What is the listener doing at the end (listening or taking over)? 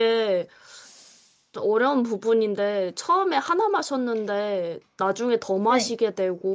listening